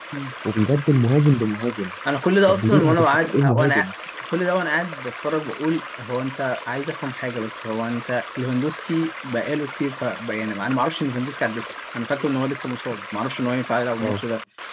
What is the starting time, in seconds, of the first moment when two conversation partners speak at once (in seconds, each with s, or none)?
2.5 s